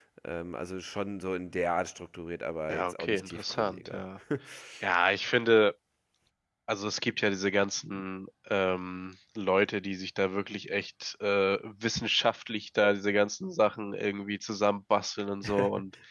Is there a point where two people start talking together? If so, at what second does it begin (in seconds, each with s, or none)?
2.7 s